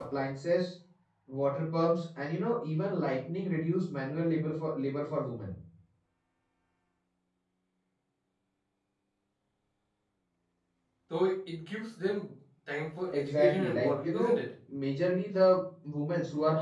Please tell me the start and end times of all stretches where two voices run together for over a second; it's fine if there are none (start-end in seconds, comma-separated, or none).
13.1-14.3